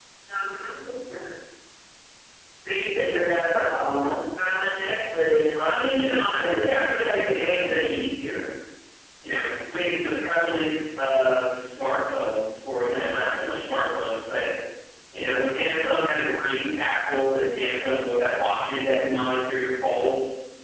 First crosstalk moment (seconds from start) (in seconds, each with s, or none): 5.7 s